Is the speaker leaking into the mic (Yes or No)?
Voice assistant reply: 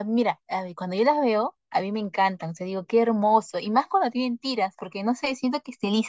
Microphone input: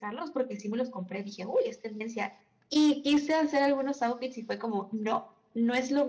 No